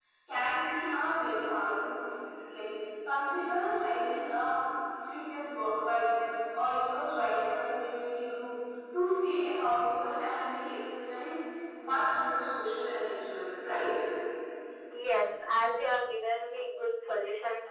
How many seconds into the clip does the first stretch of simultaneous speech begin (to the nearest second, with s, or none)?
none